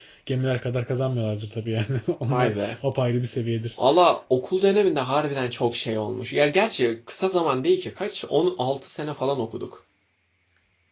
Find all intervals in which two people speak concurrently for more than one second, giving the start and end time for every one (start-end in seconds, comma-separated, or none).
none